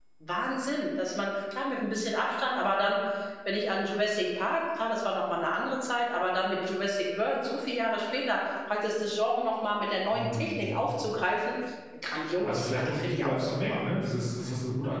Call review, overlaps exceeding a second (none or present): present